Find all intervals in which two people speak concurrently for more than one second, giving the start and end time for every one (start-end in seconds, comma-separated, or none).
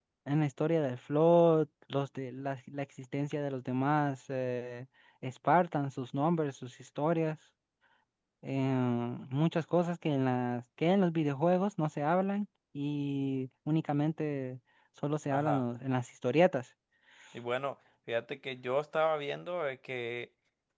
none